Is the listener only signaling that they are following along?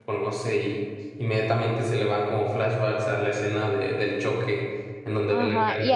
No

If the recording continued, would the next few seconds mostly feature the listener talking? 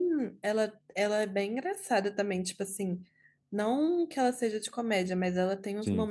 No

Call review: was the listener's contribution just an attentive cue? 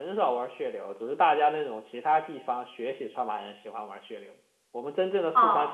Yes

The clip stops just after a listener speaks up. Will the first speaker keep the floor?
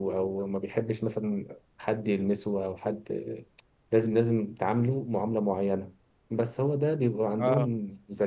Yes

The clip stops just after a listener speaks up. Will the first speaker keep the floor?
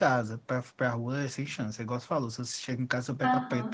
No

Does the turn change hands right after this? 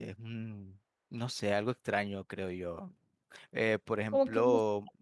No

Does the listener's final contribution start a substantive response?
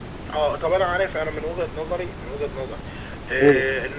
No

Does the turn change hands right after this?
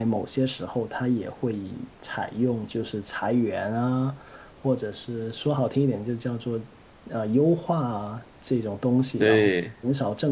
No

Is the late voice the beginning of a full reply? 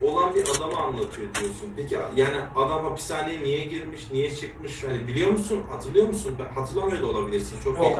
Yes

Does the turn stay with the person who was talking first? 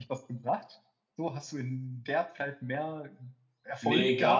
No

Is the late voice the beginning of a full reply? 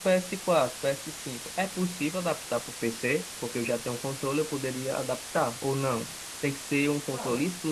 No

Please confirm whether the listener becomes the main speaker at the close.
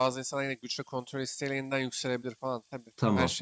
Yes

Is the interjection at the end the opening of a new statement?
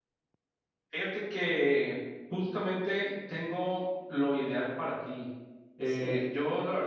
No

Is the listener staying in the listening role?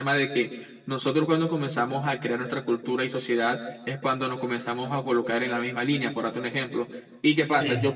Yes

